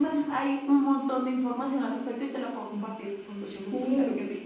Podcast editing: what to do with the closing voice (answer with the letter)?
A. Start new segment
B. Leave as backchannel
A